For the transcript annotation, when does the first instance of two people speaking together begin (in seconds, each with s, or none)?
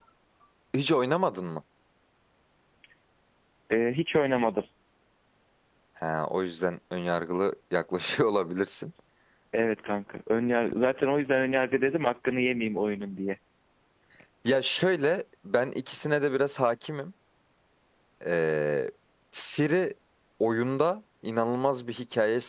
none